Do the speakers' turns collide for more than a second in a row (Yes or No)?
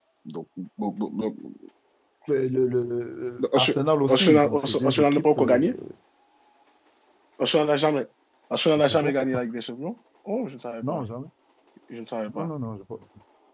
Yes